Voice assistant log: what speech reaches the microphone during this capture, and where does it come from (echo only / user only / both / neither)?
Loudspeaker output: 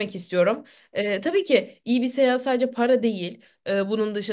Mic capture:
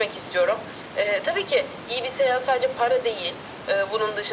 echo only